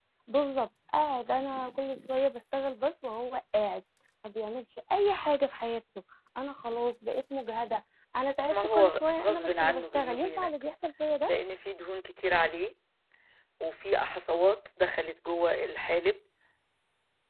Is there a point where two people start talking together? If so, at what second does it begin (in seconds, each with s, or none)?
8.5 s